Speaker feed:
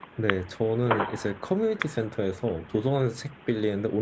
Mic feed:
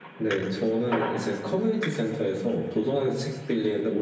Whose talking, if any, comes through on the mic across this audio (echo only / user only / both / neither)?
echo only